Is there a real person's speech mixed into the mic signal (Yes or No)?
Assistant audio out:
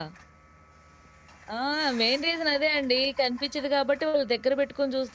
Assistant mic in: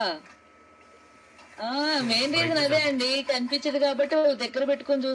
Yes